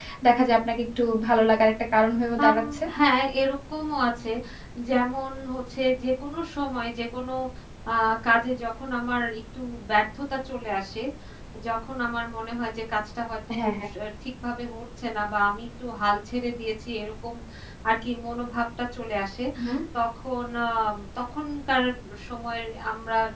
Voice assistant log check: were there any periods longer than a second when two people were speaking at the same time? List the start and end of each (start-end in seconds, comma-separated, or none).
none